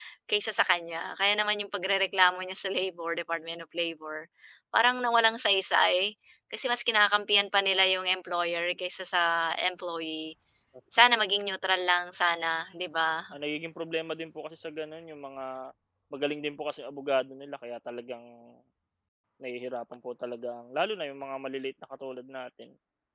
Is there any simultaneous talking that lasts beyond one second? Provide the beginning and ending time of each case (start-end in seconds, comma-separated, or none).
none